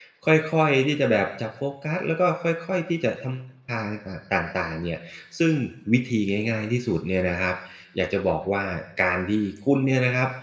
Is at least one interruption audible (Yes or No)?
No